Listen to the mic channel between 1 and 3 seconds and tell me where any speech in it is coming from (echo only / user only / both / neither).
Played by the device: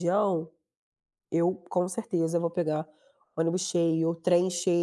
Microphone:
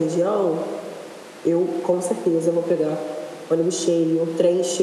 echo only